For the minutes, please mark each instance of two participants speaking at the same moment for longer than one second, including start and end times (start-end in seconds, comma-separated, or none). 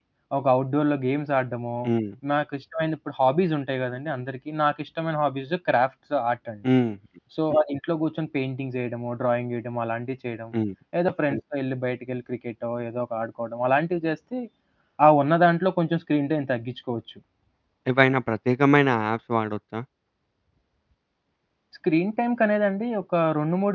none